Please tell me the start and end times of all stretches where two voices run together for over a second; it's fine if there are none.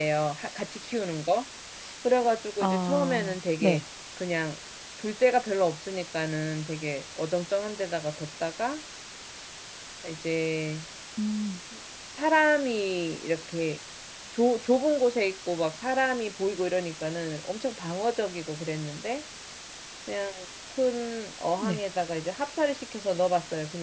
2.6-3.8

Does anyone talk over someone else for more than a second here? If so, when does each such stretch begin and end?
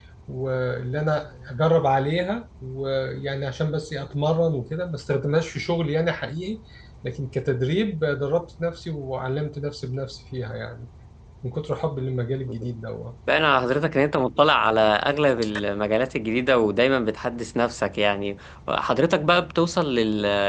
none

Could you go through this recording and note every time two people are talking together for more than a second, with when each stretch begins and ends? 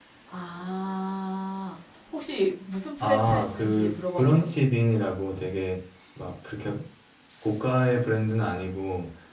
3.0-4.5

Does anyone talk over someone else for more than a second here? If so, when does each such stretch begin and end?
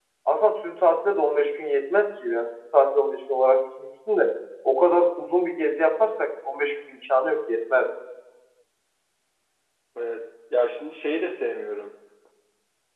none

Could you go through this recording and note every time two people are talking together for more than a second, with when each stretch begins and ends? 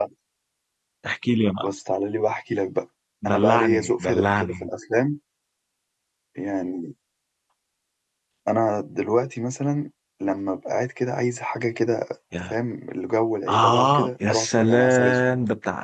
3.2-4.7, 13.5-15.2

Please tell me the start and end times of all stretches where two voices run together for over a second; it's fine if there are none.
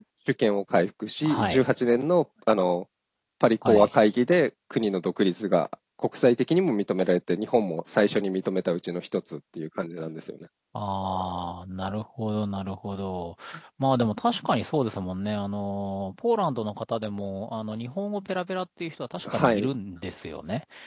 none

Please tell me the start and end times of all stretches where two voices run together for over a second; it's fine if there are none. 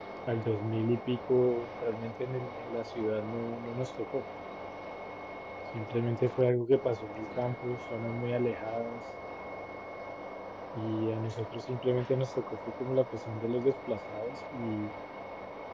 none

